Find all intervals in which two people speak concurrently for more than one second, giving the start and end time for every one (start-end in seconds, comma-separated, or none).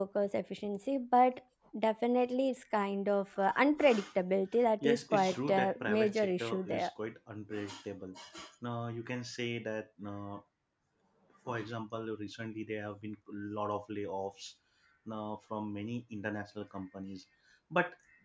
4.9-6.9